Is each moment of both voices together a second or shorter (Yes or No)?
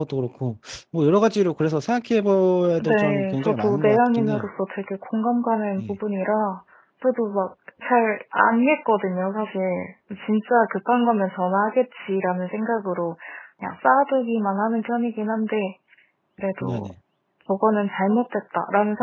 No